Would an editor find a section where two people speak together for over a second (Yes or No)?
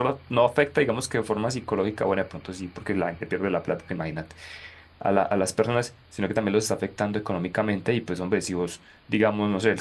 No